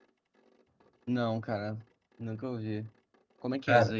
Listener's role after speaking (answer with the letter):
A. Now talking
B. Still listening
A